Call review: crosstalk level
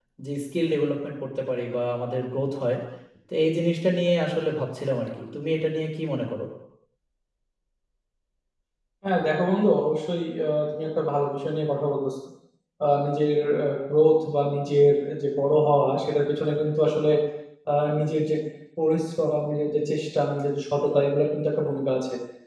none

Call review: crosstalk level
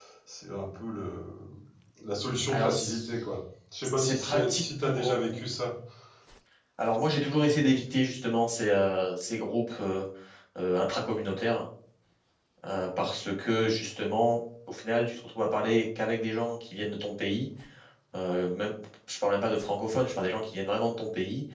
present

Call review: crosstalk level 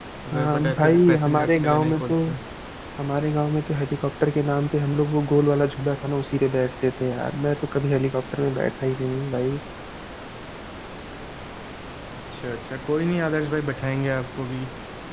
present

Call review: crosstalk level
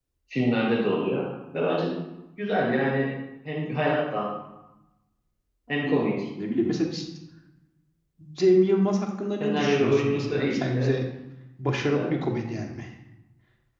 present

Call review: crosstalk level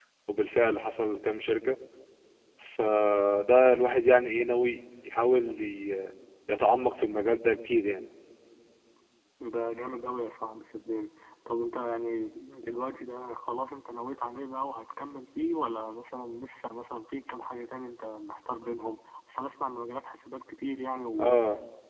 none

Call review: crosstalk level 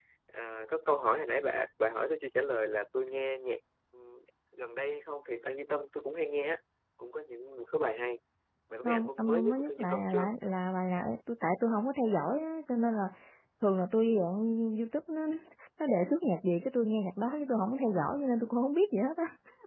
present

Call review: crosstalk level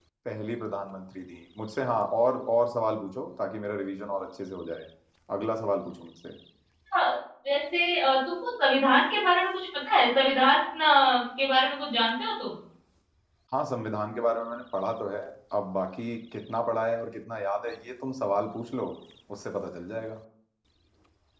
none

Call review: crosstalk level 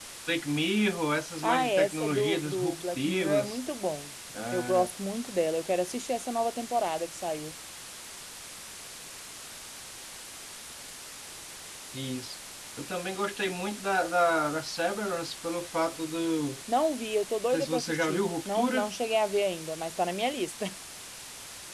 present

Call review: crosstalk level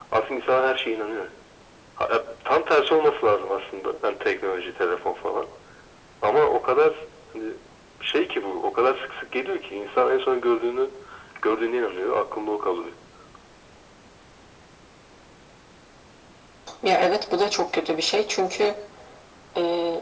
none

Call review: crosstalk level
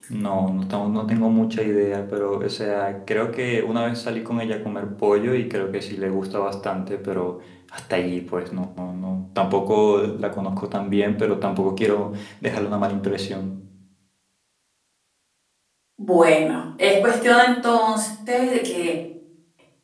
none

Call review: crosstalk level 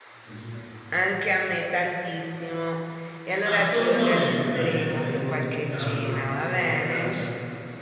present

